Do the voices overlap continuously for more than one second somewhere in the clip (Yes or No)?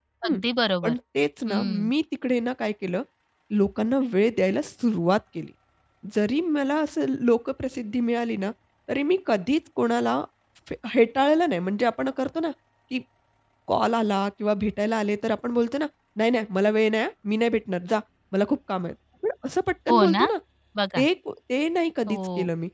No